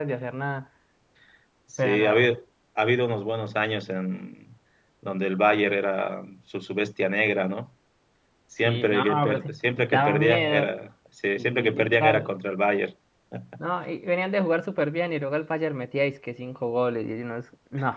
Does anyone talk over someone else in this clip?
Yes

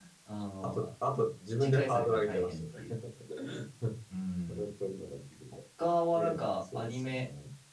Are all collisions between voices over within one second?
No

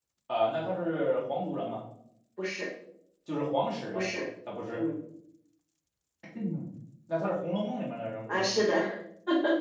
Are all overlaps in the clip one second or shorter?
Yes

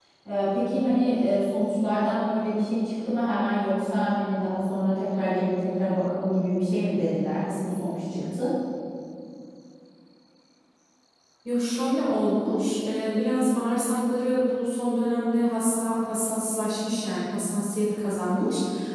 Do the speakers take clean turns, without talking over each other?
Yes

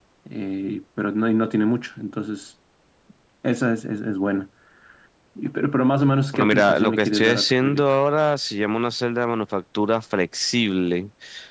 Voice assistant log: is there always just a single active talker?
No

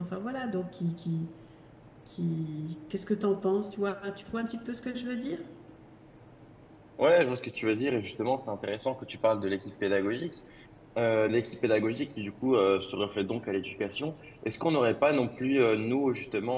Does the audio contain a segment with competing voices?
No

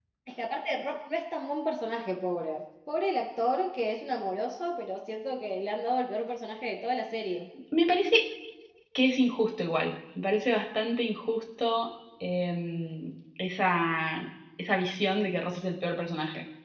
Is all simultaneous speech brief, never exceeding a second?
Yes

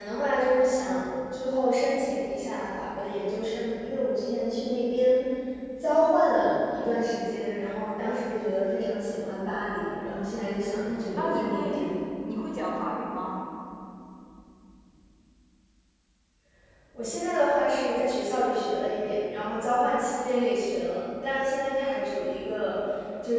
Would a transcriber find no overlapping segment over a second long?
No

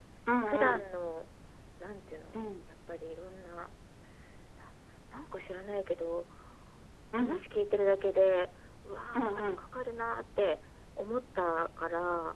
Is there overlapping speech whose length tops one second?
No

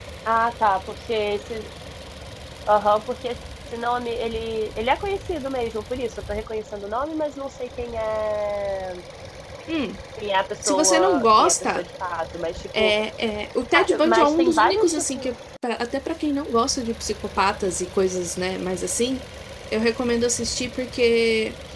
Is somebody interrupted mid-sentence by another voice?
Yes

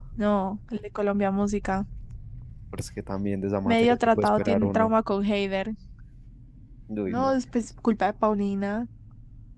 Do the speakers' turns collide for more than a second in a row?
Yes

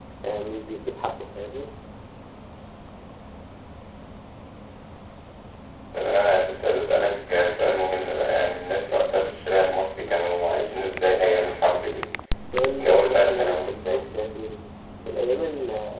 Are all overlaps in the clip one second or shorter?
No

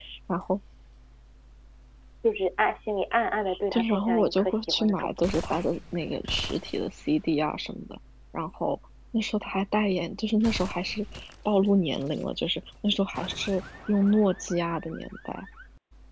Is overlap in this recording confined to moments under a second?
No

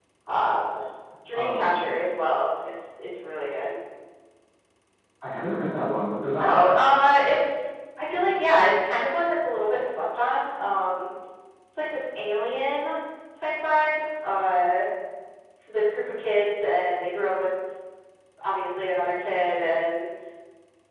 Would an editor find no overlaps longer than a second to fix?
Yes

